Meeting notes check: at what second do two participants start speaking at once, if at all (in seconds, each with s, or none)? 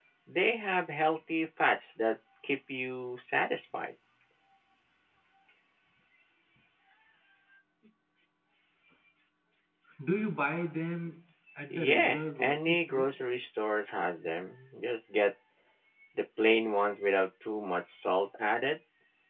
11.7 s